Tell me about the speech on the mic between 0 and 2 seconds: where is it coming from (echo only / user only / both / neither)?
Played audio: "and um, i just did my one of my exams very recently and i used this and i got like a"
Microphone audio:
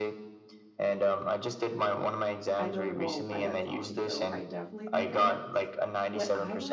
echo only